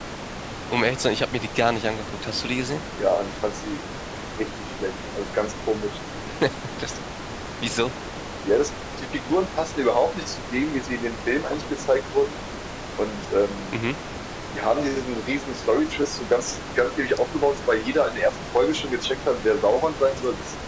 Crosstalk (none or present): none